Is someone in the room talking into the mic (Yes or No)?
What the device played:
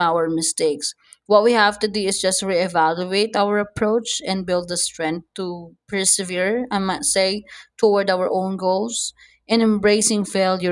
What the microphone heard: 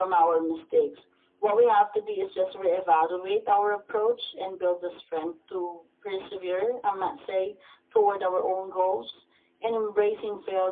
No